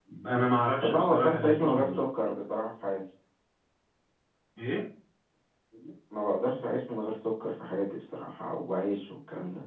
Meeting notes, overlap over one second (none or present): present